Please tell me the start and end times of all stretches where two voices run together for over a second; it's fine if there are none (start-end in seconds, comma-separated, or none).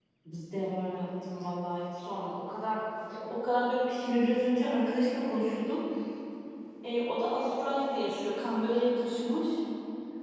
none